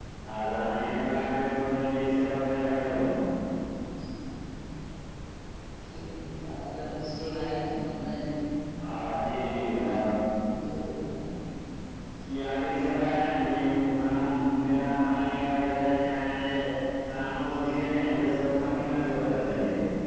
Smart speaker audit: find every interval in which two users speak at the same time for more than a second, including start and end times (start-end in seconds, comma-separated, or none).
none